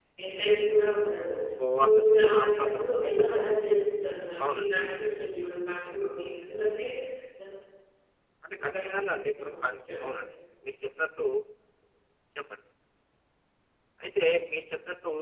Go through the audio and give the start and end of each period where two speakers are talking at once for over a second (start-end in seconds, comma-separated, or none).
1.8-3.2